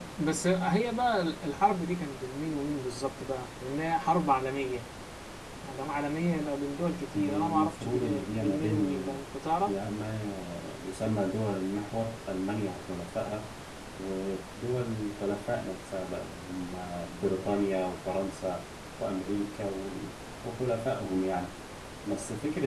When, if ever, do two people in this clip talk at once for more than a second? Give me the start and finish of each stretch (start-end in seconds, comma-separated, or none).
7.2-9.2